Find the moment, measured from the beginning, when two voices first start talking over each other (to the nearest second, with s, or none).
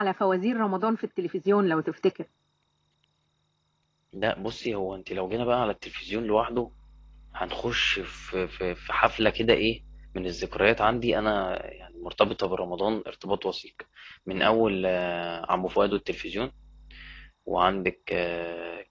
none